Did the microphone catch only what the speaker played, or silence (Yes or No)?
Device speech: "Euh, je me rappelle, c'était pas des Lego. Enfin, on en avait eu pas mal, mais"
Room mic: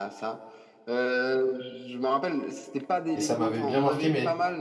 No